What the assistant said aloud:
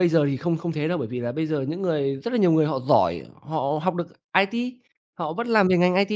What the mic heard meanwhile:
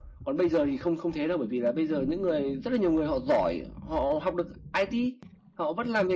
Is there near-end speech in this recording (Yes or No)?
No